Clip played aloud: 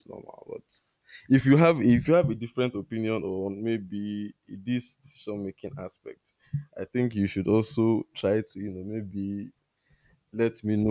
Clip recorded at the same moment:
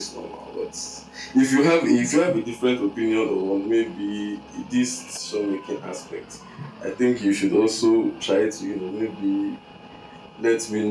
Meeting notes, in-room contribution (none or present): none